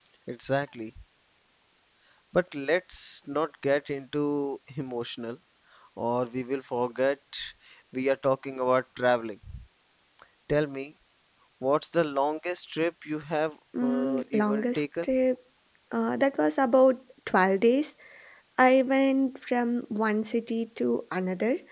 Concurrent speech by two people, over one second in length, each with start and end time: 13.8-15.1

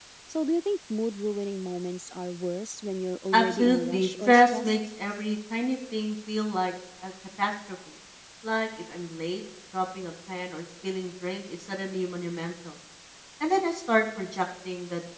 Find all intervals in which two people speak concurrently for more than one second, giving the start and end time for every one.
3.3-4.8

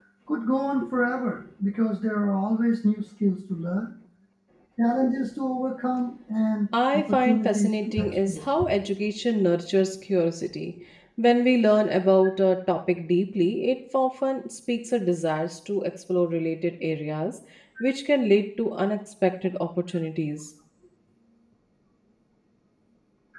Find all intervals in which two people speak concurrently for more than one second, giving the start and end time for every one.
6.9-8.5

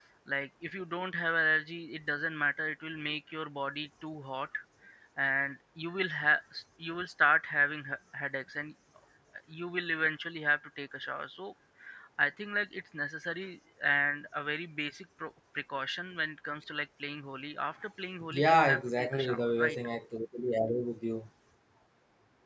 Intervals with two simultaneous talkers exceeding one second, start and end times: 18.3-19.8

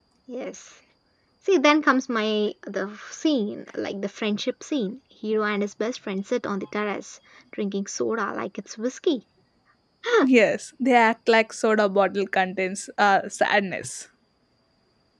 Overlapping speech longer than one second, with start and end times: none

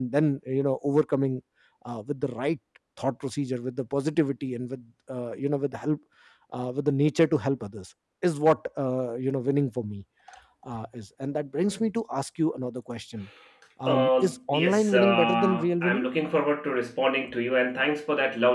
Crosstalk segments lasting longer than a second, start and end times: 13.9-16.0

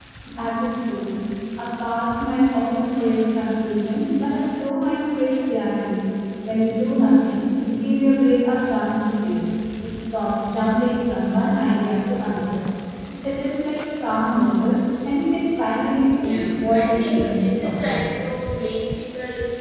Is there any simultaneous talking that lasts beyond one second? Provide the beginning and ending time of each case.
16.2-18.0

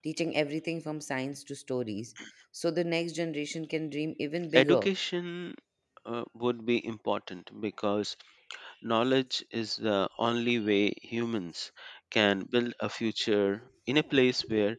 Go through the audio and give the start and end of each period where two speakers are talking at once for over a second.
none

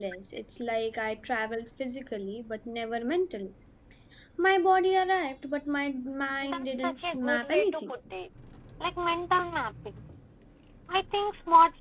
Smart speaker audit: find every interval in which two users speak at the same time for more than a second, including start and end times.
6.4-7.9

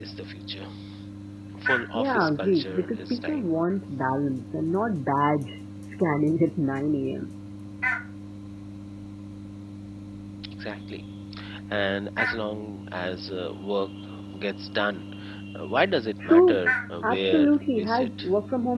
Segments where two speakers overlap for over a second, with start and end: 1.9-3.5, 17.0-18.3

